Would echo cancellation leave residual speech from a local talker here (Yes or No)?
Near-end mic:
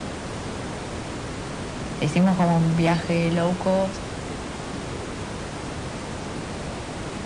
Yes